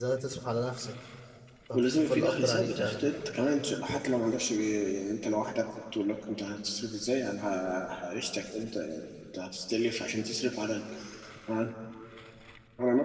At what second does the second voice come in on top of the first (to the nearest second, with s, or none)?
2 s